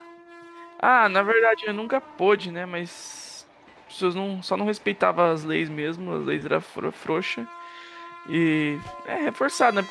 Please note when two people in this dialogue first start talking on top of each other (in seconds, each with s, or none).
none